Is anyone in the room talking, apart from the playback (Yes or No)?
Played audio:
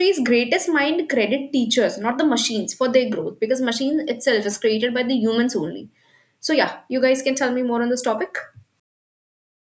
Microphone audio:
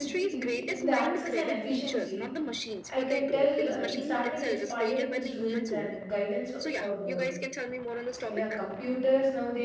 Yes